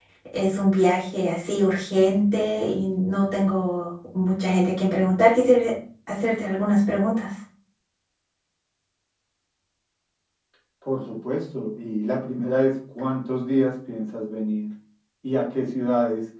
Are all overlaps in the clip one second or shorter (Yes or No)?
Yes